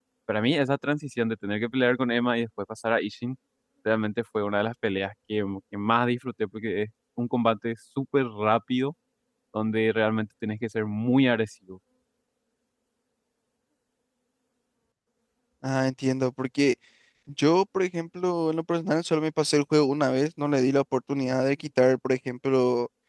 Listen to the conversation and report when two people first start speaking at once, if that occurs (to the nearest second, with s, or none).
none